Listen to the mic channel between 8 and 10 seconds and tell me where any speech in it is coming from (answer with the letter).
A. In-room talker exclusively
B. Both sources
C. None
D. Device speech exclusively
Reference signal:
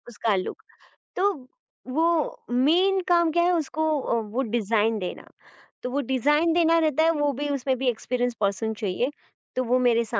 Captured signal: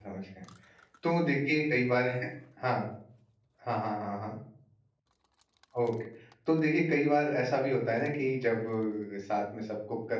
A